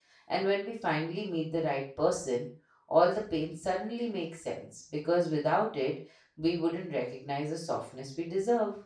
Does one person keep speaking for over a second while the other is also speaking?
No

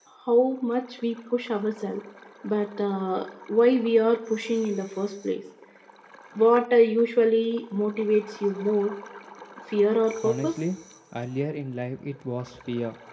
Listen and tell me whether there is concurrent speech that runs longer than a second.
No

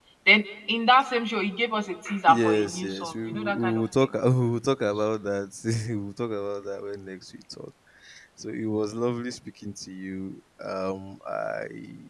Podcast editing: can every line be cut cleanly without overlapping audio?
No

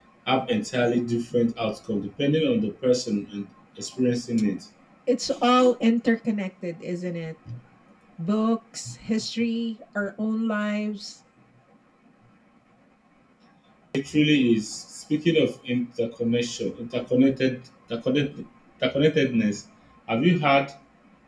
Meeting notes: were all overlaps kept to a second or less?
Yes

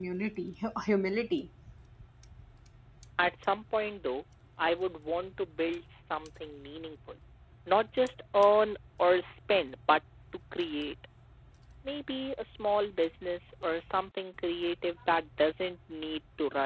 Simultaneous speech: No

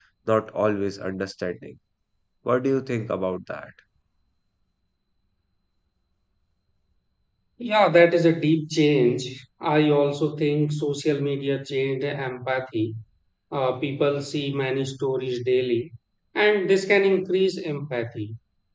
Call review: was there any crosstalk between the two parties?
No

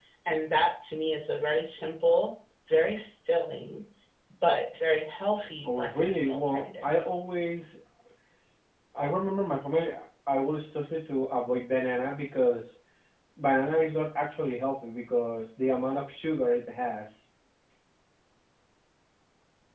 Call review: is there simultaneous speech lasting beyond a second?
Yes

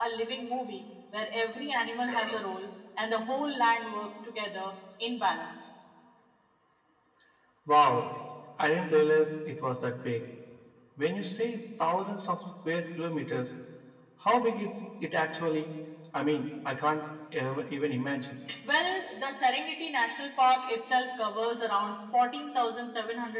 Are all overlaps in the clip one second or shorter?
Yes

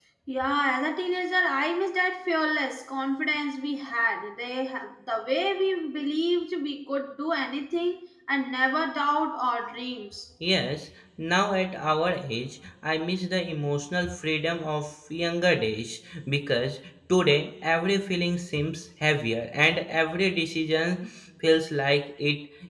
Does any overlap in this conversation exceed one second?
No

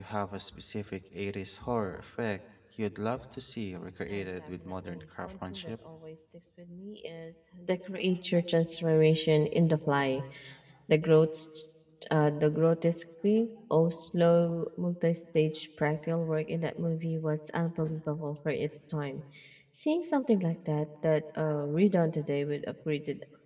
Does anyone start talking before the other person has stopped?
Yes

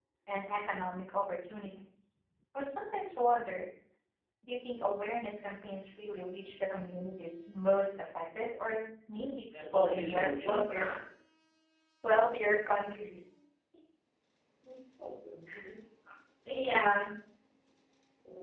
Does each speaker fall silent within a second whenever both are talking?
No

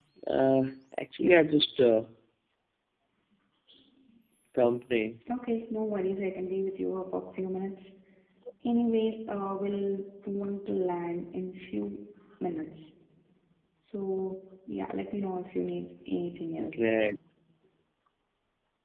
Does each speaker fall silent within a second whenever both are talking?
Yes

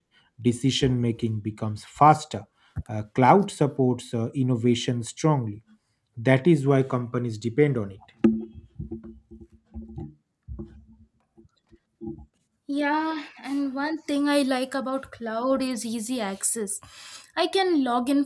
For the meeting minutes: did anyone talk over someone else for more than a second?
No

